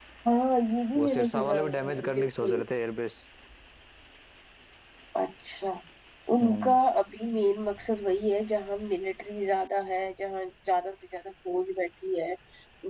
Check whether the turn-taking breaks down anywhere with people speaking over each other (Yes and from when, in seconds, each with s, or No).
Yes, from 1.0 s